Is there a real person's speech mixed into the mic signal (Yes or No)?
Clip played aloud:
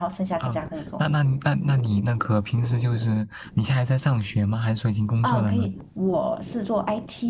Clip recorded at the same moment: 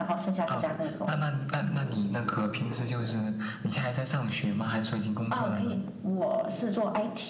No